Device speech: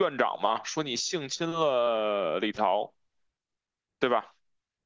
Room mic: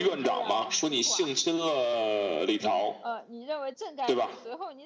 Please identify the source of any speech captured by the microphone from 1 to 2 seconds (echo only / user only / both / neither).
both